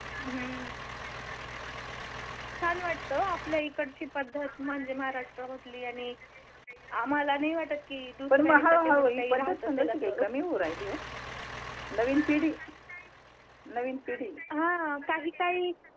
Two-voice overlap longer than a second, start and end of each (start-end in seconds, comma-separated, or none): 8.3-10.2